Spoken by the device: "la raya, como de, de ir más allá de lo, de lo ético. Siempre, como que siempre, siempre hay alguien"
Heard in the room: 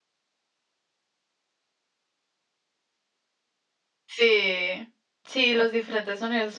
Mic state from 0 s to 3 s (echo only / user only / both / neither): neither